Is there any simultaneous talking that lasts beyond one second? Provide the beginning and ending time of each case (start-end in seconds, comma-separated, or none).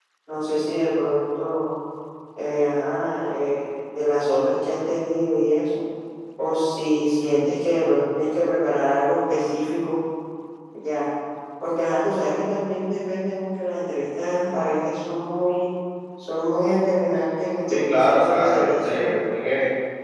17.9-19.1